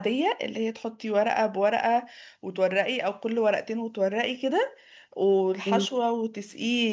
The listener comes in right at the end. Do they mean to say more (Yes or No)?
No